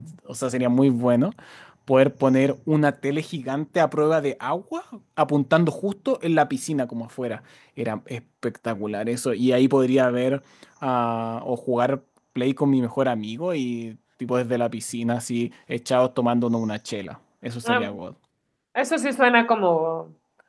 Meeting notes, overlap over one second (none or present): none